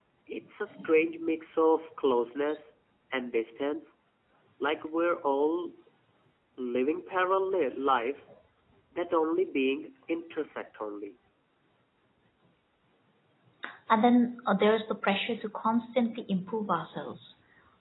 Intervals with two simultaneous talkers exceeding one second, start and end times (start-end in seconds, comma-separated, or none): none